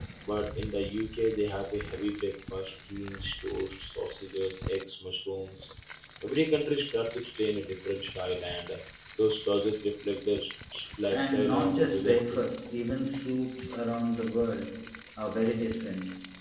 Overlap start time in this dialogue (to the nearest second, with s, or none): 11 s